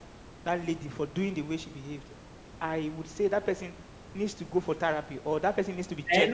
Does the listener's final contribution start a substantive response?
Yes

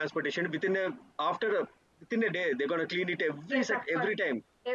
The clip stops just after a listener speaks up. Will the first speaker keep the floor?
No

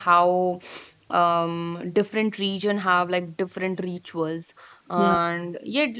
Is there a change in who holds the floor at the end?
No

